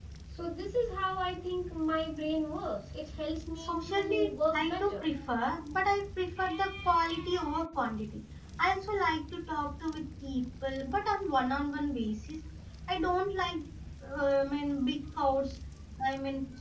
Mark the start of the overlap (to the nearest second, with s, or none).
4 s